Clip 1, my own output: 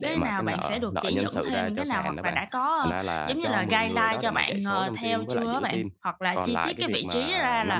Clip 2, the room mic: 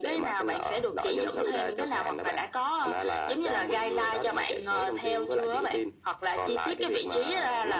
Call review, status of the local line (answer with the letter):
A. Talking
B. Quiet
B